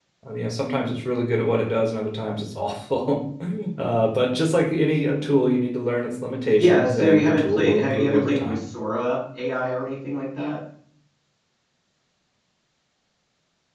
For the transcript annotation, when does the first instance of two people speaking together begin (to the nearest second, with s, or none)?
7 s